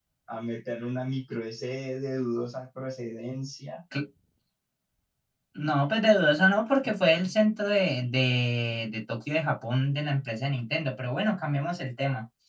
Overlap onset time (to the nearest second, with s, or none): none